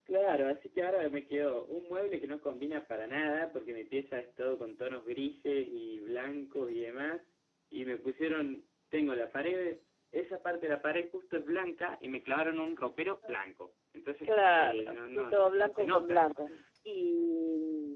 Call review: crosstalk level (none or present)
present